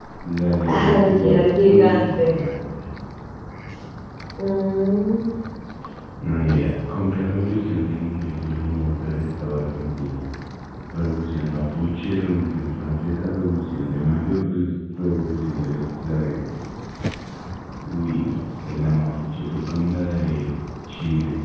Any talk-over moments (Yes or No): Yes